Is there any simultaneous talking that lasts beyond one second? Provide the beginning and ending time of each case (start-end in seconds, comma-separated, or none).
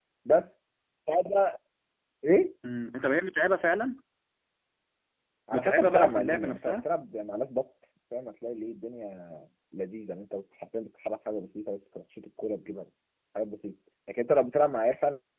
5.5-6.8